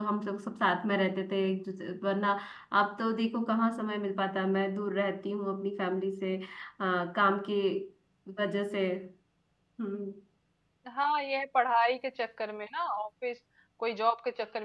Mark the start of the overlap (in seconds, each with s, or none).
none